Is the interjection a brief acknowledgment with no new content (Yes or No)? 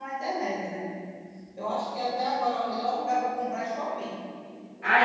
Yes